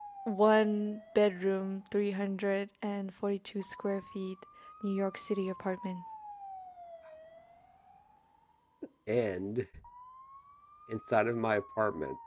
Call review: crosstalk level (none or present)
none